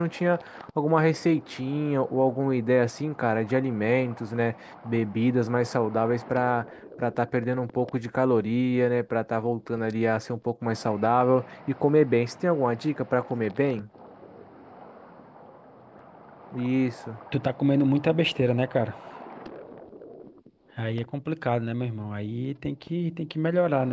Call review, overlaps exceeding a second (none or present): none